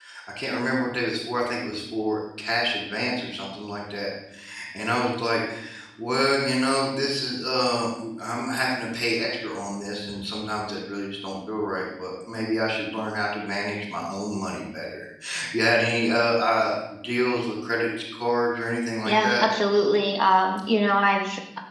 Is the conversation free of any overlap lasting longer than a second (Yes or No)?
Yes